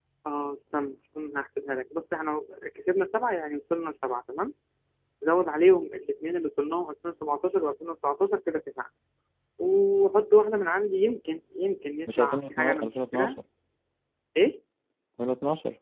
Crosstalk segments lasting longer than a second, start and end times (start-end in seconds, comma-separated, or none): 12.2-13.4